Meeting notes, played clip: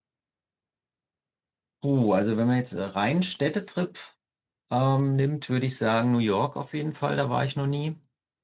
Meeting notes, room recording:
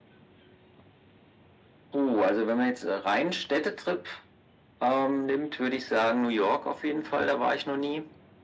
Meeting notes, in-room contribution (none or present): none